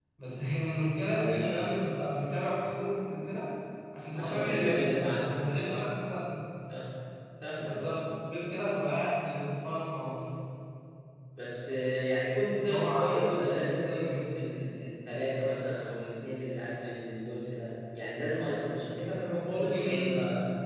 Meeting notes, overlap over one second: present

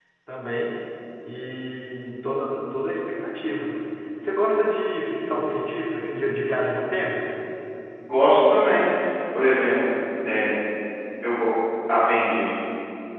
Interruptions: none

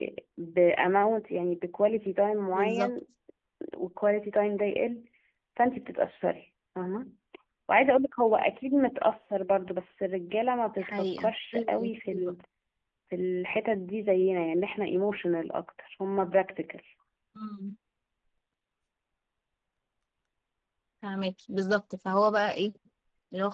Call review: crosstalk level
present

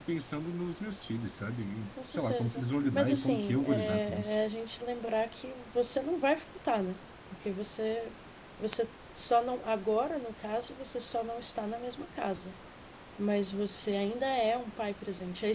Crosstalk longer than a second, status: present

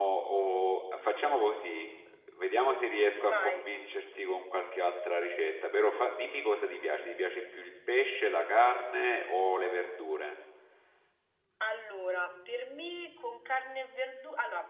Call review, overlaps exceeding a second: none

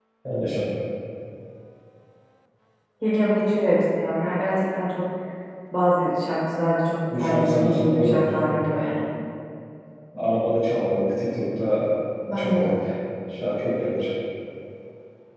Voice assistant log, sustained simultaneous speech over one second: present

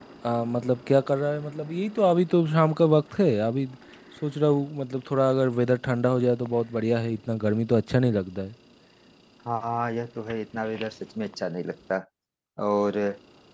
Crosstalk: none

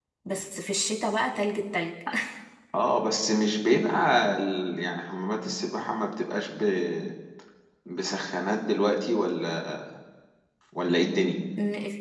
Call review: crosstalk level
none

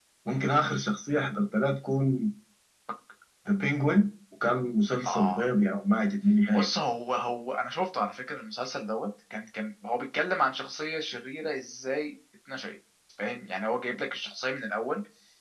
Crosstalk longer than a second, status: none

